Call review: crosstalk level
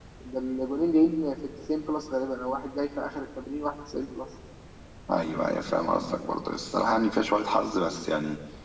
none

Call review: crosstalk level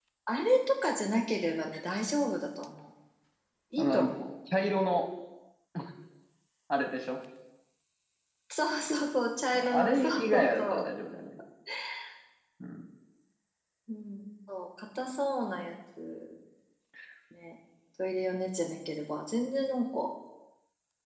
present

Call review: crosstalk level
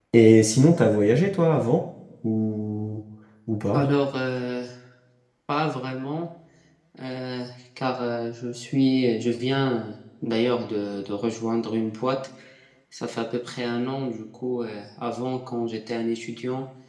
none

